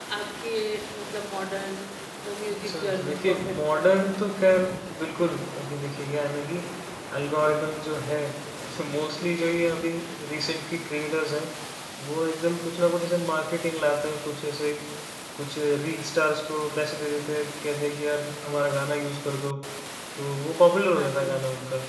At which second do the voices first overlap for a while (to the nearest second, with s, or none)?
3 s